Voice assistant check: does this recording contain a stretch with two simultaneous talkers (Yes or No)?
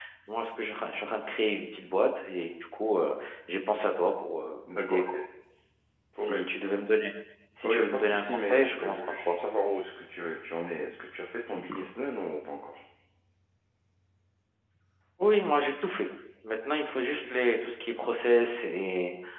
Yes